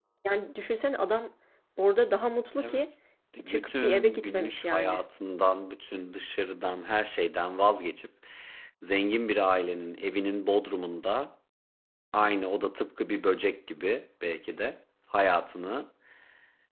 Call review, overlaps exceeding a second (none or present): present